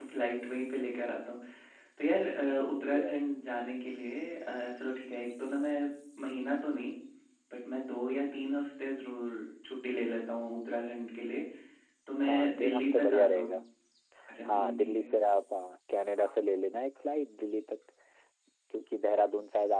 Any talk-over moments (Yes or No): Yes